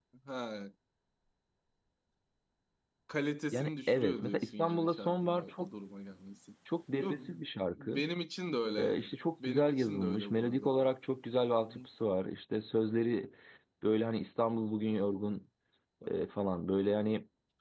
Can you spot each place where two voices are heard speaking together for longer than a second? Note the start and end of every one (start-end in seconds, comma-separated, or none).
3.5-5.7, 9.4-10.9